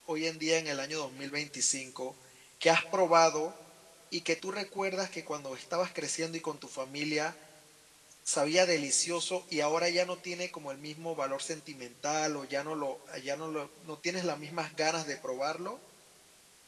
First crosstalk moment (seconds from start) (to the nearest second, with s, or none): none